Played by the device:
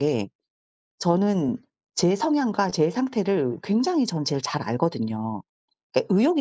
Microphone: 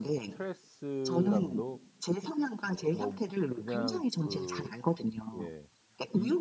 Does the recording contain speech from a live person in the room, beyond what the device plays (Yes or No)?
Yes